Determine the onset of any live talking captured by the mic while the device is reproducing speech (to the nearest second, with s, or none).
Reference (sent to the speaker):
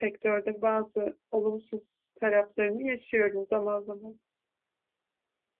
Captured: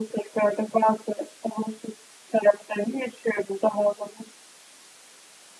none